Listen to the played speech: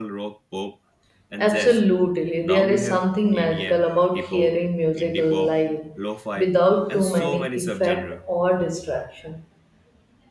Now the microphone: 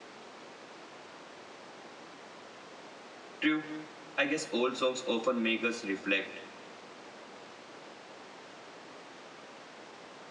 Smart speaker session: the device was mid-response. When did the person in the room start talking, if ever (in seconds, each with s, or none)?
3.4 s